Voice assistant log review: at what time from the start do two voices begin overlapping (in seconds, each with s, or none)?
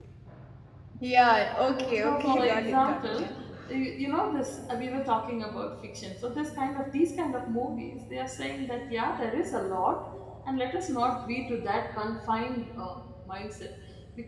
1.9 s